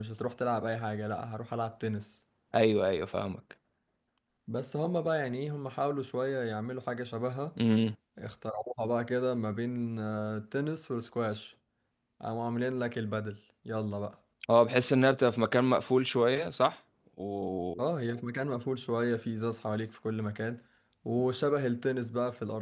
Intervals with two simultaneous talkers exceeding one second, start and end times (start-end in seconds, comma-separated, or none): none